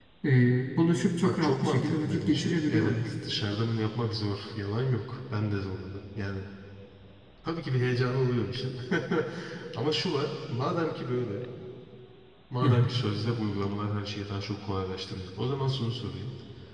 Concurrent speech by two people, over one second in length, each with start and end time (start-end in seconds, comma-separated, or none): 1.2-3.1